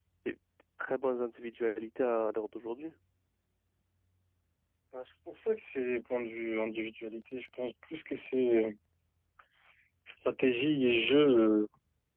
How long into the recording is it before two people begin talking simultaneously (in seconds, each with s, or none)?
none